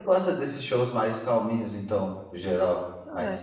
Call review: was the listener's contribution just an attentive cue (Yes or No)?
No